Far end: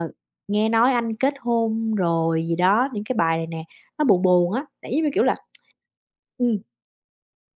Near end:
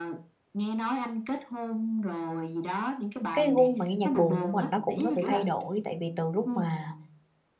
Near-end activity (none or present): present